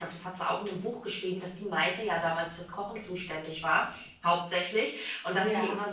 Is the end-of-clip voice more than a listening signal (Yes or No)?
No